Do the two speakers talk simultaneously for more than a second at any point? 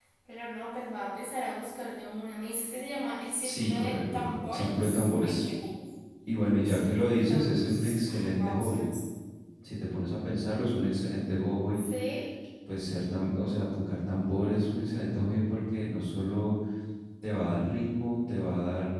Yes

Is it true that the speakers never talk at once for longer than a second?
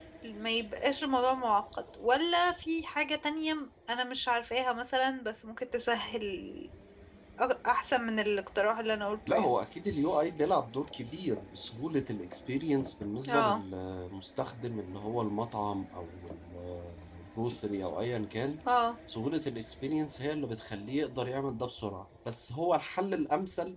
Yes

